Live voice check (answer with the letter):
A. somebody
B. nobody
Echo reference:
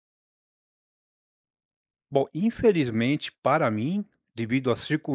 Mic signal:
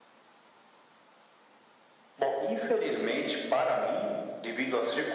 B